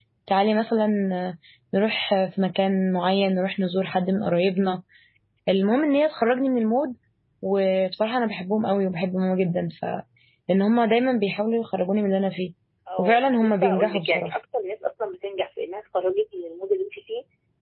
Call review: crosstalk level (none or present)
present